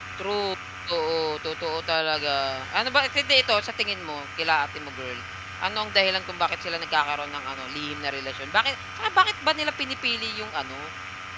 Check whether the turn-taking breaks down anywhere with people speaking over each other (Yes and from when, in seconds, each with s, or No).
No